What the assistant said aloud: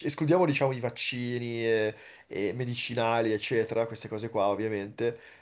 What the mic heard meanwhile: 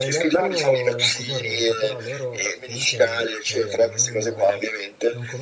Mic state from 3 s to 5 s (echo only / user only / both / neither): both